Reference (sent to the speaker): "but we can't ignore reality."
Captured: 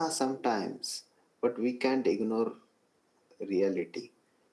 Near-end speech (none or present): none